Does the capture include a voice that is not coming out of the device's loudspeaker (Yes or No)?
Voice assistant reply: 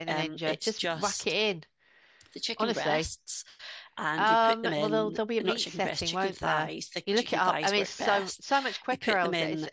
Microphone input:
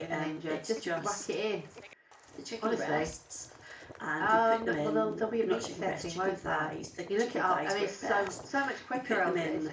No